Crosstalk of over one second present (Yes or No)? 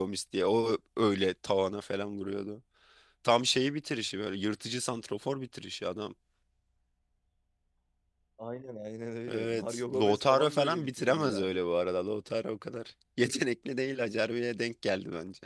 Yes